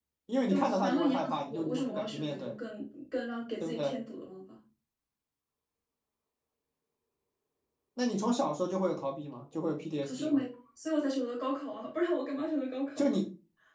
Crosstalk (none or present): present